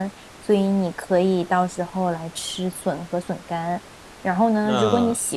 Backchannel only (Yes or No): Yes